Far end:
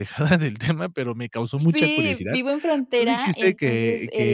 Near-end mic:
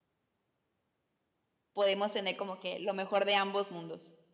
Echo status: none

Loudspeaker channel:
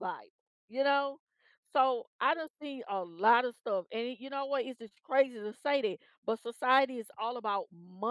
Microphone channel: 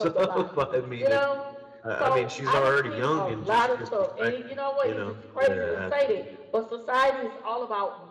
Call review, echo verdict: present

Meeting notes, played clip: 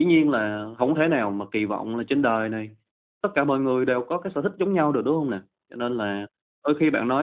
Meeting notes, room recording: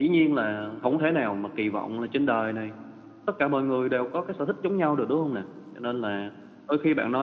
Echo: present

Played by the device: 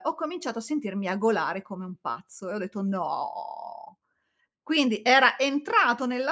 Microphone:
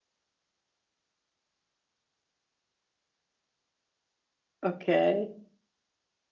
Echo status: none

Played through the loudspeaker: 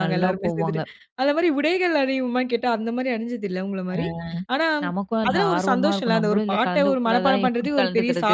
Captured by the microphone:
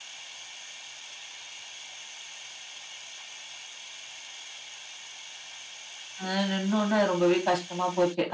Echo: none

